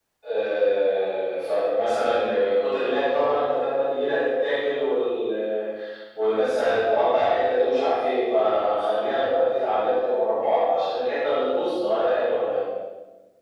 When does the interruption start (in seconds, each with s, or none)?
none